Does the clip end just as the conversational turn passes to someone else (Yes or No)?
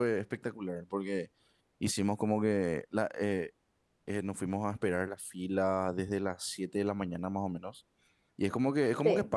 No